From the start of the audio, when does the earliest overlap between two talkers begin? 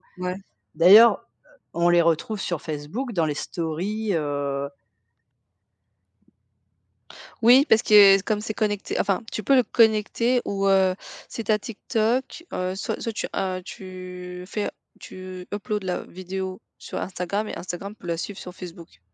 none

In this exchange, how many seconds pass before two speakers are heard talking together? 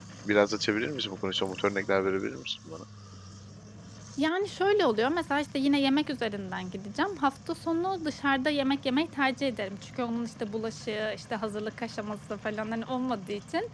none

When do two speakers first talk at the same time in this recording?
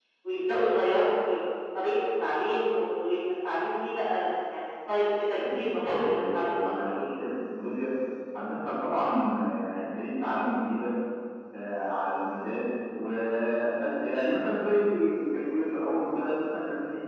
5.4 s

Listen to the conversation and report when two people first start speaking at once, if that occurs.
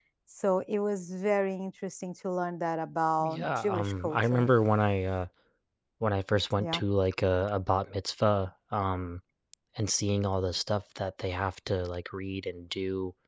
3.2 s

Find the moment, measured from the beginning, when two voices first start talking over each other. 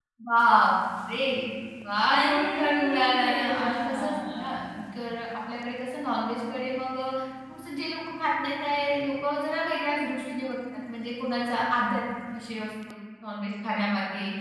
2.1 s

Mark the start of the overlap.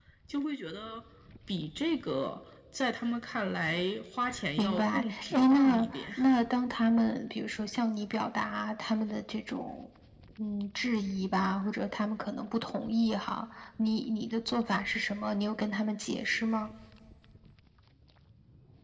4.6 s

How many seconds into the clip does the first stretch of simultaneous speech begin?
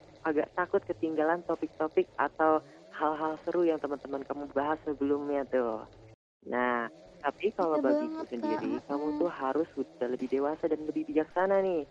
7.7 s

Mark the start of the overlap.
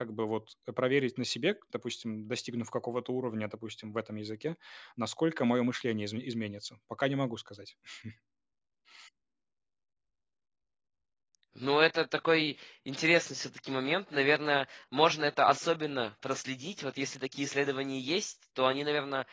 none

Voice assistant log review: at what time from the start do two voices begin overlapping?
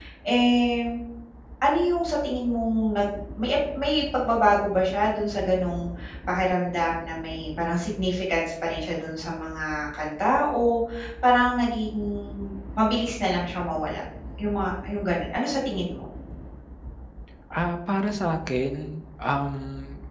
none

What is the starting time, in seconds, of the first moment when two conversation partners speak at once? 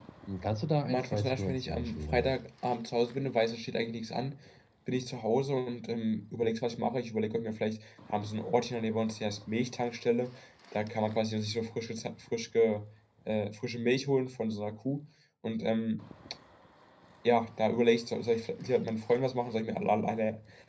0.8 s

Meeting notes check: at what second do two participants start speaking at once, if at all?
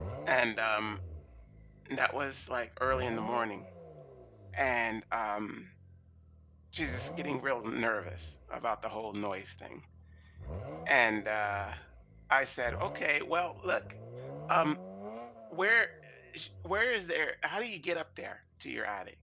none

